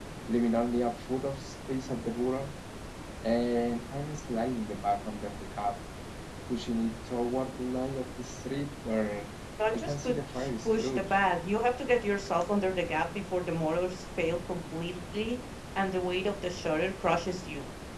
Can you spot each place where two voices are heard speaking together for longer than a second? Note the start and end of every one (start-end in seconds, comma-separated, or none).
9.7-11.2